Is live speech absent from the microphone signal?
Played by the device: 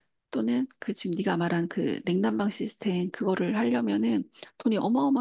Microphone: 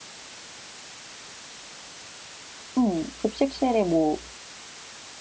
No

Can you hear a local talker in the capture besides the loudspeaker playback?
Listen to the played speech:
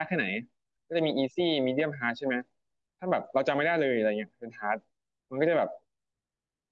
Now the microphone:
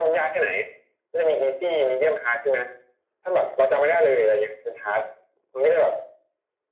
No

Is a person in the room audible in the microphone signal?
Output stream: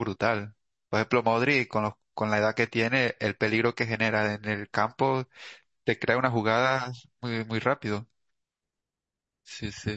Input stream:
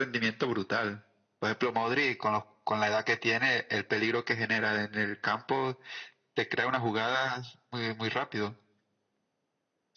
No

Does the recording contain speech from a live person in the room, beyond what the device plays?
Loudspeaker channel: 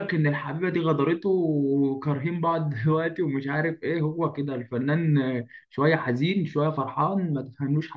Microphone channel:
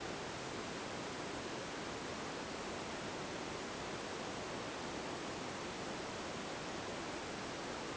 No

